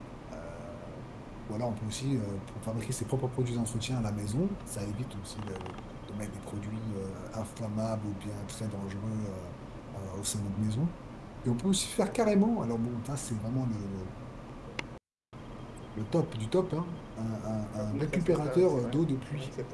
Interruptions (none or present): present